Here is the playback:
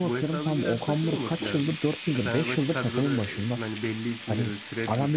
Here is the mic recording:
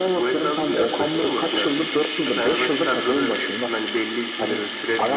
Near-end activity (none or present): none